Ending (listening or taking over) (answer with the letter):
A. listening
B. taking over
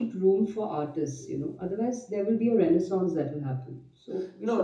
B